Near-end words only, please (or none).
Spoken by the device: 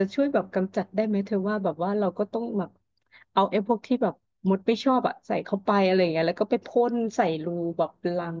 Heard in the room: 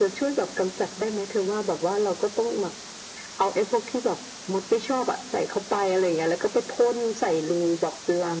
none